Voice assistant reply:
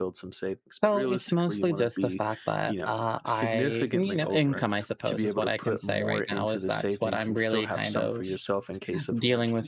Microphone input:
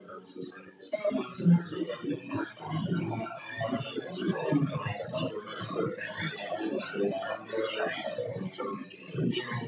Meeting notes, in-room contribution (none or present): none